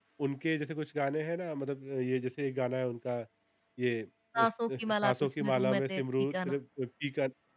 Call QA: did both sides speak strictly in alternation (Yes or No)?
No